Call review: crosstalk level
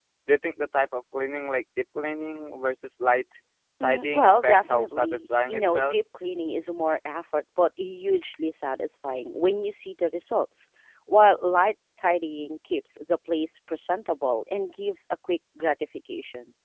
present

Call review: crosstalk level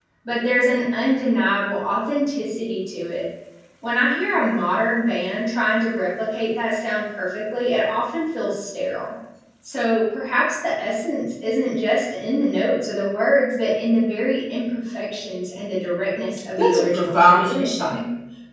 present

